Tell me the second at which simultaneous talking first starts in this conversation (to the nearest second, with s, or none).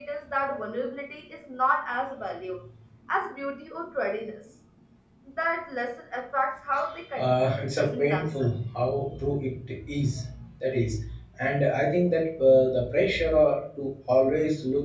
7 s